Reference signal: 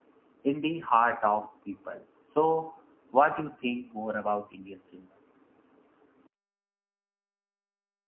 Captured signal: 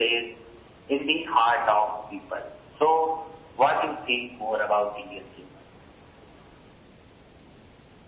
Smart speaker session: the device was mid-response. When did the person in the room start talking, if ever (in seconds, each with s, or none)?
none